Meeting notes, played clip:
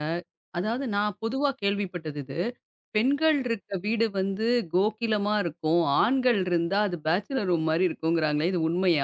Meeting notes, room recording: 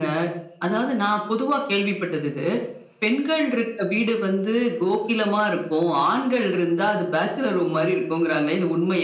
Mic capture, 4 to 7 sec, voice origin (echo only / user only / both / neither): echo only